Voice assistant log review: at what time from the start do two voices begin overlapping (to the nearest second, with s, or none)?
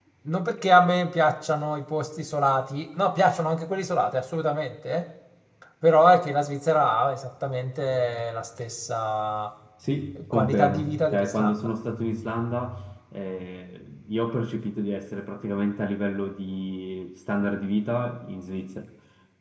10 s